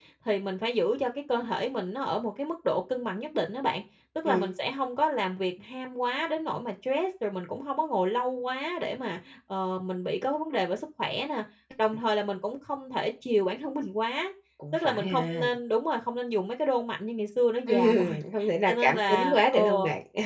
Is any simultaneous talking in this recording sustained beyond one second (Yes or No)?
Yes